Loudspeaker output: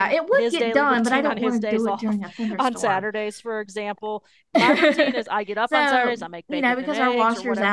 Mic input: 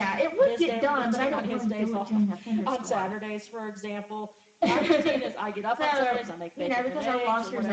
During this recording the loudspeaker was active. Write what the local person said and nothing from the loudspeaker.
none

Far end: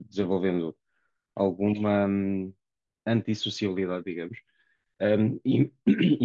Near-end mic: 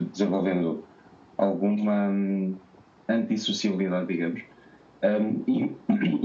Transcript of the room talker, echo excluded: none

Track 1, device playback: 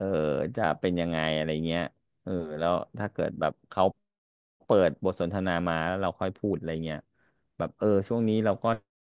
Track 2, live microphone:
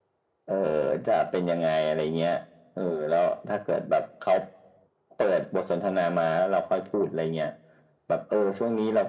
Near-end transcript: none

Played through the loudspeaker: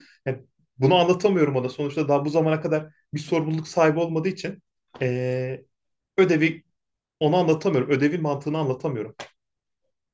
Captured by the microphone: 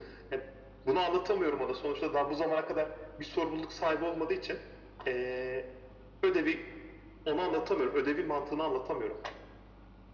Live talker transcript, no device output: none

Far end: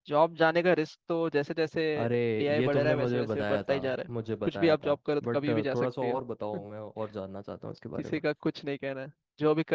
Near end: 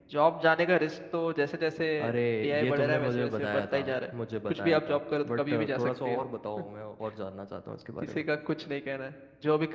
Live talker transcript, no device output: none

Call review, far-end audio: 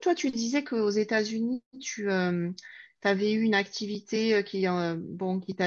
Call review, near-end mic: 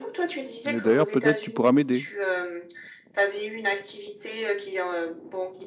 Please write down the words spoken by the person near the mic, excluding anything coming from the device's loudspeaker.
Et d'ailleurs, peut-être tu pourras m'aider.

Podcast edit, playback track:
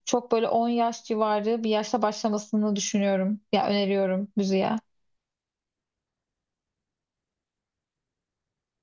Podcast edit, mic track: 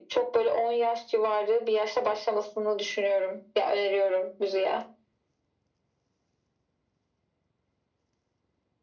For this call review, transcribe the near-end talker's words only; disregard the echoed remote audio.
none

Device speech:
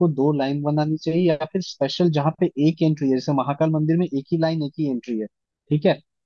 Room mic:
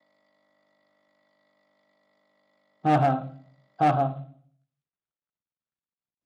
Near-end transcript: हाँ हाँ हाँ हाँ

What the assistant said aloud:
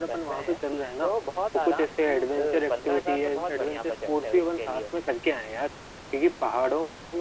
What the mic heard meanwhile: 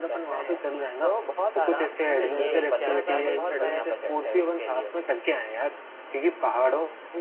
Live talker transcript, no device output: तो ये क्या क्या लेख बताया तुमने

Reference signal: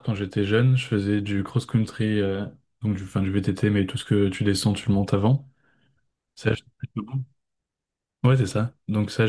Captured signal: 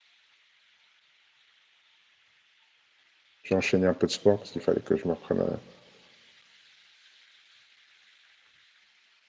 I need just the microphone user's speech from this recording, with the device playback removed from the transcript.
j'ai enchaîné un peu de sport parce qu'il fallait que je me reprenne, un-

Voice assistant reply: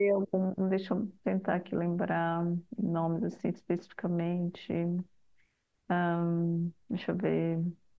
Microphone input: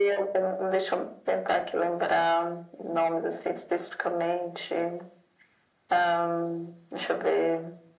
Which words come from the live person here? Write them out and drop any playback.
none

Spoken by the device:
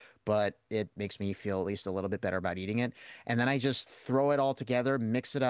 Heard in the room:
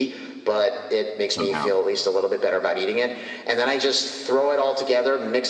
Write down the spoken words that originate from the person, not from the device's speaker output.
somehow.

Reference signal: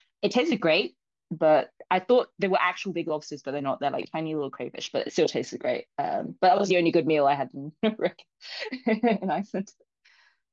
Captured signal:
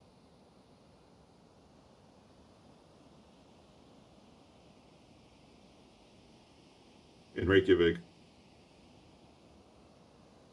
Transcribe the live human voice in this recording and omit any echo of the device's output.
in Reykjavik.

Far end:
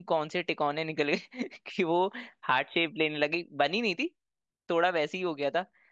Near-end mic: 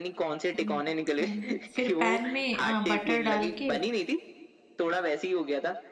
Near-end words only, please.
हम्म हम्म। फिर पैन में अ, बटर डाल के

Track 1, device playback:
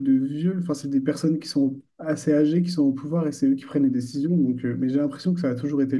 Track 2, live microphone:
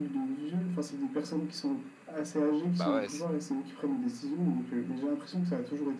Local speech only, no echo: bah ouais,

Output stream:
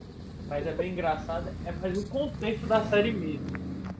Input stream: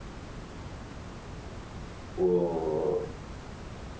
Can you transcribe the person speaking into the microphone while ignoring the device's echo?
O,

